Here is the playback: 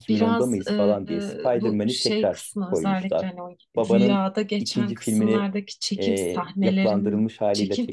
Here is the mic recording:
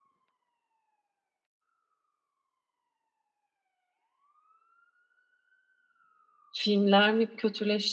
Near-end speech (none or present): present